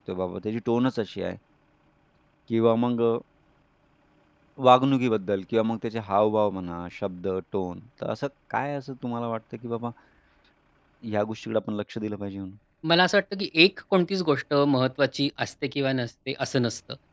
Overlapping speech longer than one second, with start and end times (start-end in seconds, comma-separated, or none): none